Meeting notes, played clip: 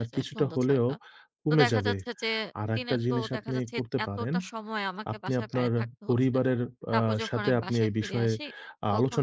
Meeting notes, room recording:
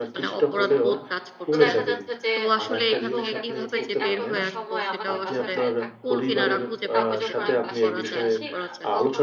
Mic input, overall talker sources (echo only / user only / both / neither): both